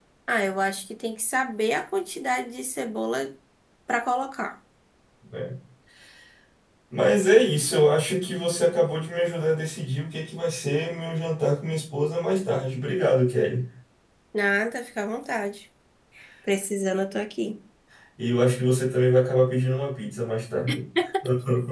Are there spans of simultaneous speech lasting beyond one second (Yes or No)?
No